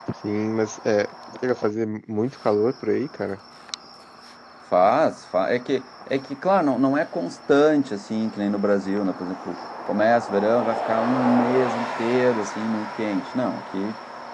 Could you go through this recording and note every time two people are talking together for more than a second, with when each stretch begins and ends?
none

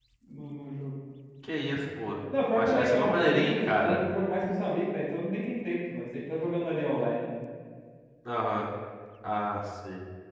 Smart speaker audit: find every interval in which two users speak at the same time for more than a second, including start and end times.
2.5-4.0

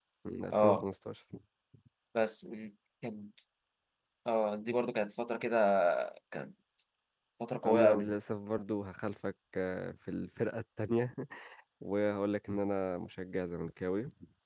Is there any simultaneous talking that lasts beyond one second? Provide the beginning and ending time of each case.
none

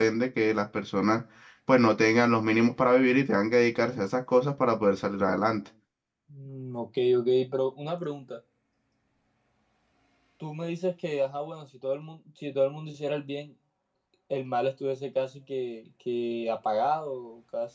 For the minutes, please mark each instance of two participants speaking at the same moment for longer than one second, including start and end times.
none

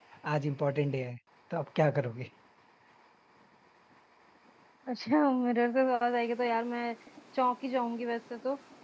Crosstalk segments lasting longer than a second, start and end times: none

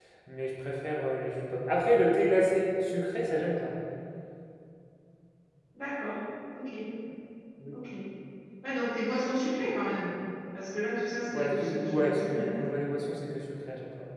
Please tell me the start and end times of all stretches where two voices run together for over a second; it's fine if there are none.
11.3-12.5

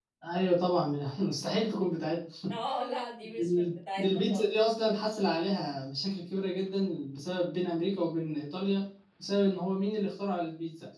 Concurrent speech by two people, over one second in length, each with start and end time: 3.2-4.5

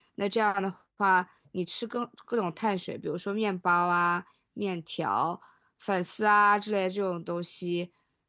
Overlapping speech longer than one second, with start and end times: none

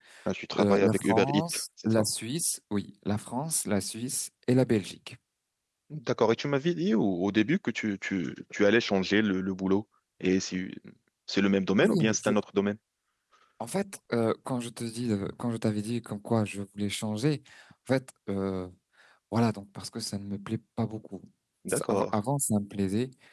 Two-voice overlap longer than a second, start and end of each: 0.6-2.0

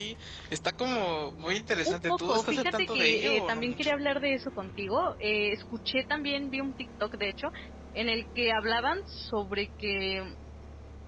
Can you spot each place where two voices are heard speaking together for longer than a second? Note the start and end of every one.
1.9-4.0

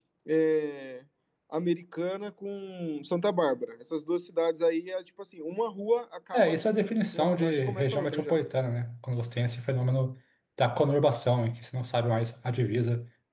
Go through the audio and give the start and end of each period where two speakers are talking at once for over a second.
7.1-8.4

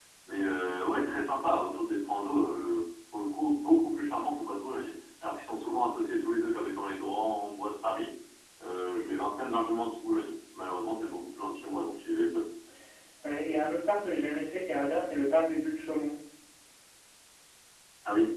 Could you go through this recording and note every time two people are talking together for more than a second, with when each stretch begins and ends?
none

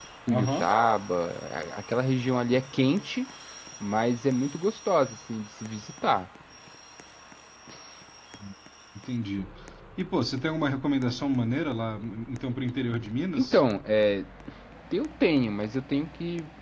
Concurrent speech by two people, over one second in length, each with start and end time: none

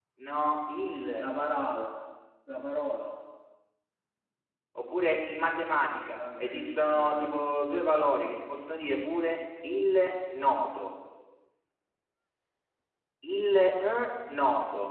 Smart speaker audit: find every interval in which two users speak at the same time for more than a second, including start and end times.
5.7-7.3

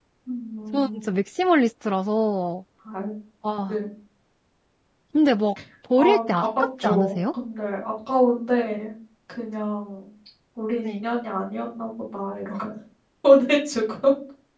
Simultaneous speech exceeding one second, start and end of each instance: 6.0-7.2

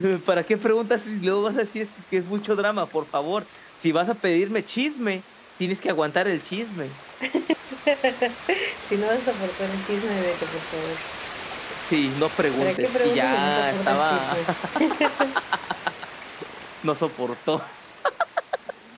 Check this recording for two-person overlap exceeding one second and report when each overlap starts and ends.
12.6-14.4

